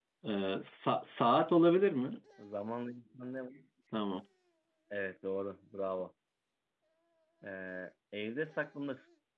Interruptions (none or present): none